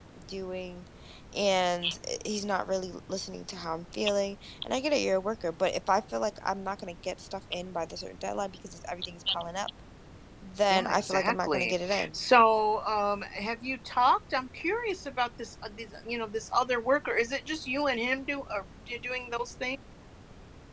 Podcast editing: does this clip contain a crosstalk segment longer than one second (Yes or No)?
Yes